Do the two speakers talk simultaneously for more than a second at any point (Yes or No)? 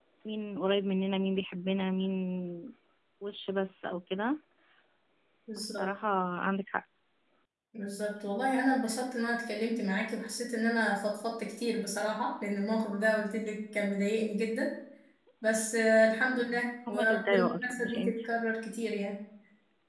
Yes